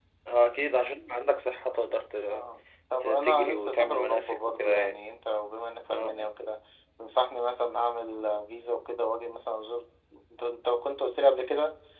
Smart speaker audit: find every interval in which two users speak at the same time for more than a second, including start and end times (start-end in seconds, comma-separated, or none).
3.0-4.9